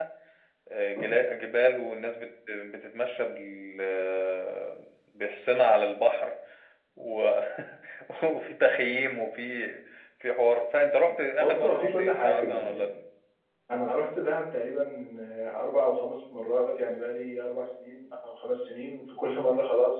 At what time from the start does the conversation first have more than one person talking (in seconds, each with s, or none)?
11.4 s